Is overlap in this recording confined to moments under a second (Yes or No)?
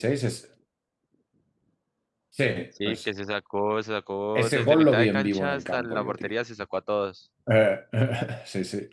No